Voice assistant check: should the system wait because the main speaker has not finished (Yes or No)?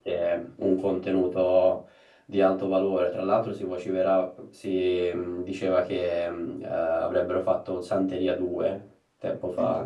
No